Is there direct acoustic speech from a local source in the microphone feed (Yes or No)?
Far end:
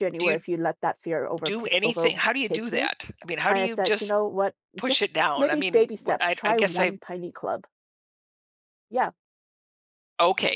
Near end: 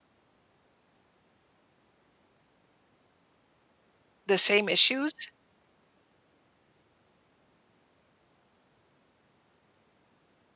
Yes